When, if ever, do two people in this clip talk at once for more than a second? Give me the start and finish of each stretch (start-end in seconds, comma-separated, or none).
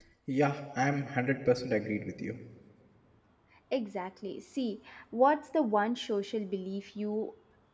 none